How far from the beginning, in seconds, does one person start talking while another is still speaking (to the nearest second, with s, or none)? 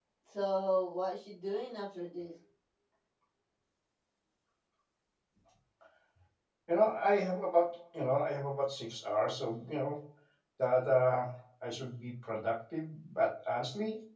none